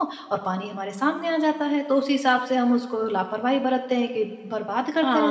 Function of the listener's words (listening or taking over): taking over